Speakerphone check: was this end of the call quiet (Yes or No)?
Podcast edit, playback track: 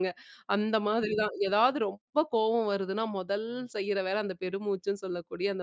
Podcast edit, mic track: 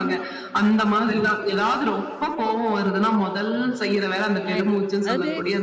No